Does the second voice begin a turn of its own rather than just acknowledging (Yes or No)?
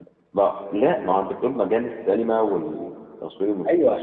Yes